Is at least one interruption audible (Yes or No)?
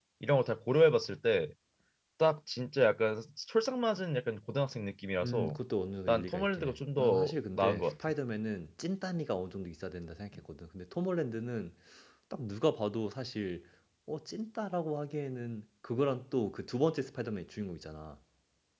Yes